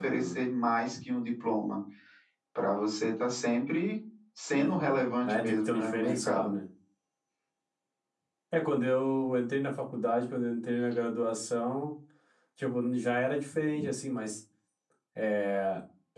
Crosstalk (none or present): present